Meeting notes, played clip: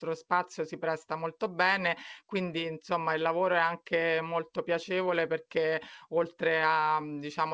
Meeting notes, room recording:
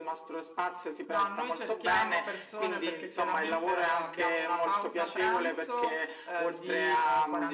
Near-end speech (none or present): present